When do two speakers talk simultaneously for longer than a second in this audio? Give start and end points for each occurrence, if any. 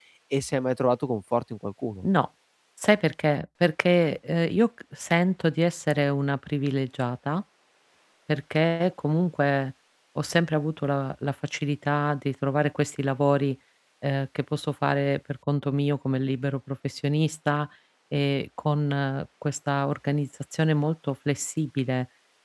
none

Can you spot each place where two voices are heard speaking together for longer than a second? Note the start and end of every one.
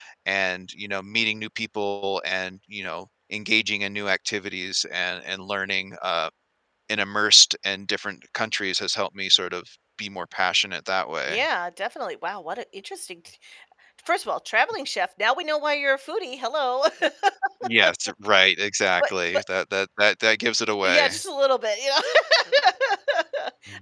none

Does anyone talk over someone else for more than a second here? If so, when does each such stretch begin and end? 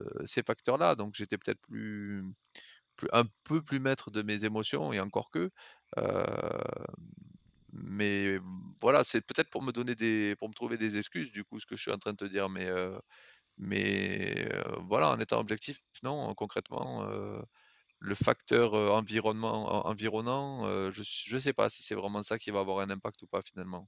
none

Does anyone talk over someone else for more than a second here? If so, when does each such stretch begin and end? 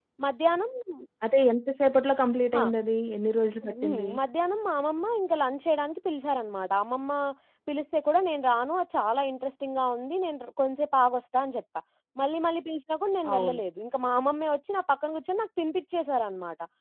none

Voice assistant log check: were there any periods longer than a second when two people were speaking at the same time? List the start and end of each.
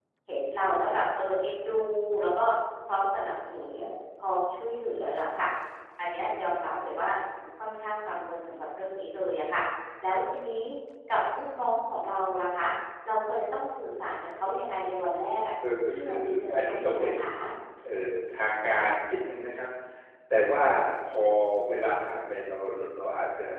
15.9-17.1

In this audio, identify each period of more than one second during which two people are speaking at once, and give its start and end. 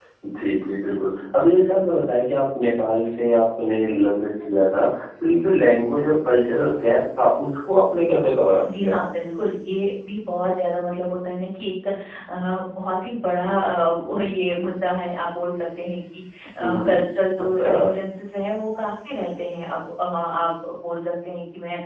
none

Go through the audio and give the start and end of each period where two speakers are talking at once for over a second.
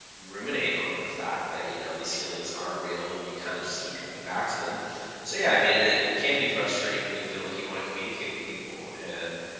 none

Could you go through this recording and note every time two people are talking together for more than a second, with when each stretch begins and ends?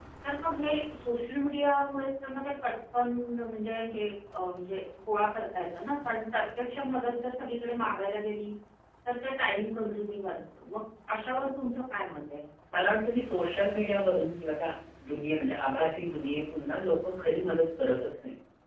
none

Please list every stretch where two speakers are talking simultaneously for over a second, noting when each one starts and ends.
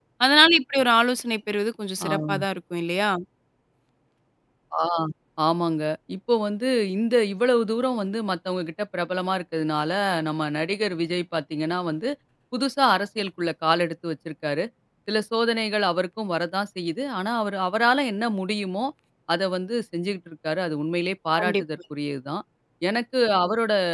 none

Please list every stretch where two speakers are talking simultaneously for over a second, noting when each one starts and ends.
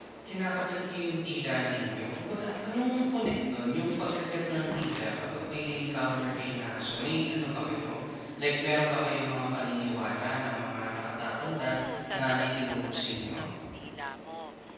12.2-13.4

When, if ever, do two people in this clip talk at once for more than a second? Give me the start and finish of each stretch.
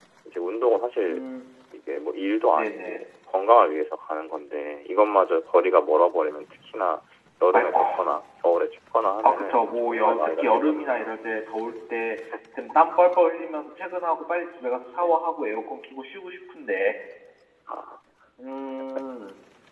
9.2-11.1

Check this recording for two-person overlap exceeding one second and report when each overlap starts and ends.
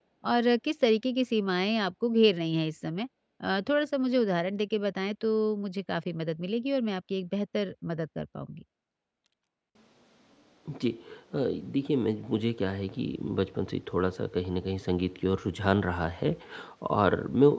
none

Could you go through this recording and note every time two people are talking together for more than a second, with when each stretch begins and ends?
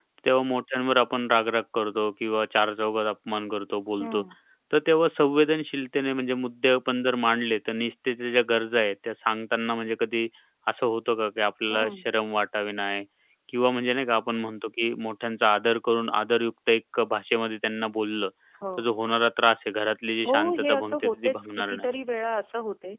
20.2-21.9

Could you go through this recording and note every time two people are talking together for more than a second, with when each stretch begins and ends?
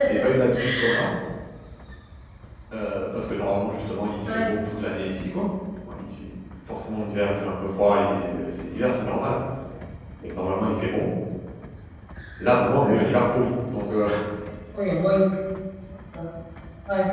none

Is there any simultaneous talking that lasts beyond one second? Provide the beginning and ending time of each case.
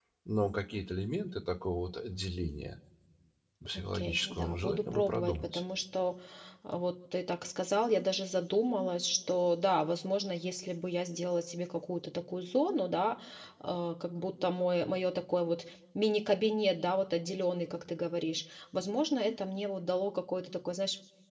3.7-5.6

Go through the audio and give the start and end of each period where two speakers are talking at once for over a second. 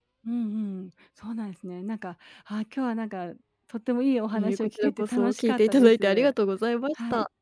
4.3-6.3

